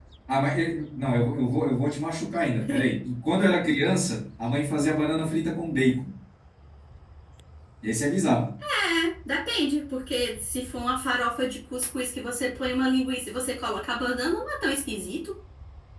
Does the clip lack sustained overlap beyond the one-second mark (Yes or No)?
Yes